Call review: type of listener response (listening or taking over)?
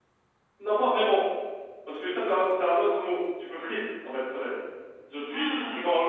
listening